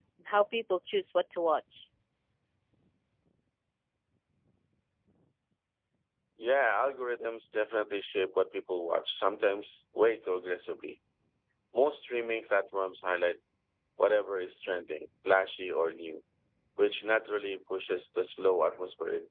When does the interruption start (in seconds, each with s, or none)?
none